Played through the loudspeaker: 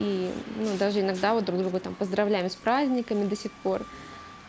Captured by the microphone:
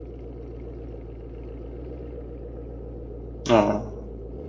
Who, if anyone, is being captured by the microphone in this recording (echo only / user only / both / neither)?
user only